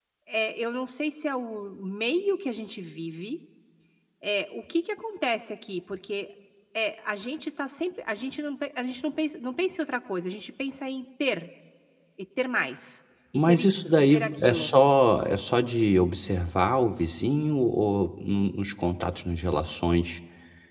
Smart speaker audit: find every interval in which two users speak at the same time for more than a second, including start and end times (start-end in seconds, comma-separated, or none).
13.5-14.7